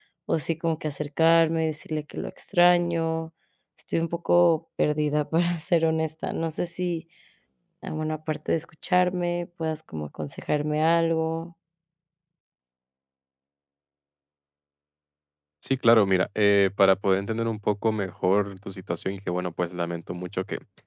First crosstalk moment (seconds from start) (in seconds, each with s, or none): none